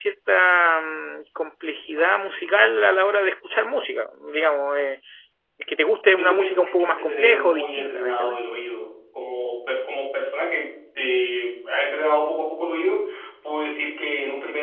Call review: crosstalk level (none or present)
present